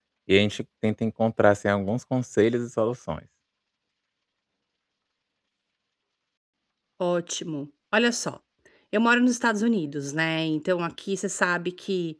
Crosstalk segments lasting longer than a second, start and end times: none

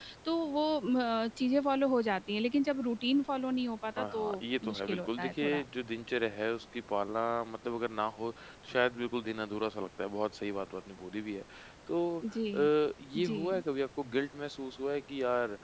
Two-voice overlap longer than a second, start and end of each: 4.0-5.6

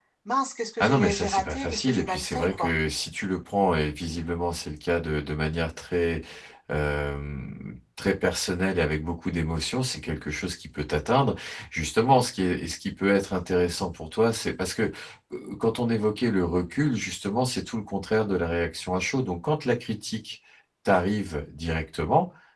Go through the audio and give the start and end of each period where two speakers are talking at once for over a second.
0.8-2.7

